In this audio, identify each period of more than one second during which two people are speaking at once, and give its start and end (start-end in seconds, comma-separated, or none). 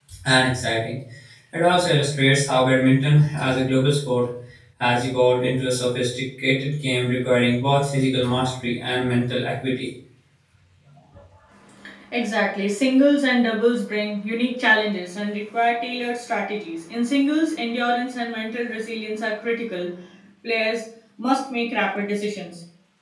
none